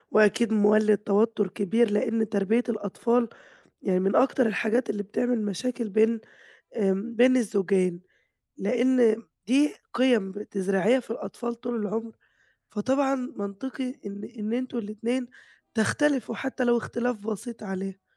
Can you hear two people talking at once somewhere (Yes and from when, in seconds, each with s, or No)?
No